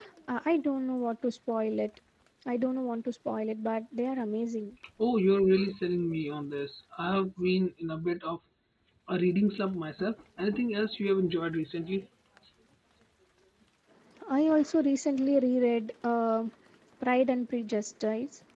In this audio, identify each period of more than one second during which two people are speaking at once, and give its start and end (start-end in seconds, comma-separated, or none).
none